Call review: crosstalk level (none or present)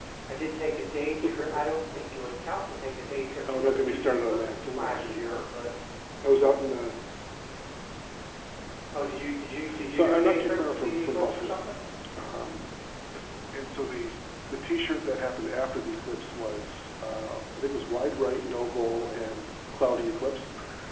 present